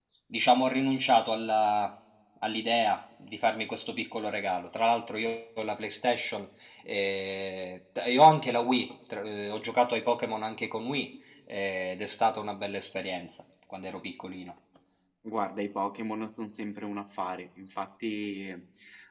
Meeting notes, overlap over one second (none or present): none